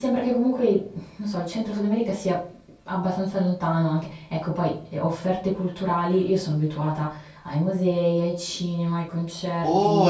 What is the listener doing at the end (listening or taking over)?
taking over